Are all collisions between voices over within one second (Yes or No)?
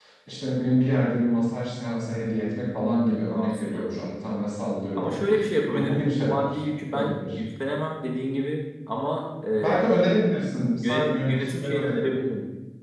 No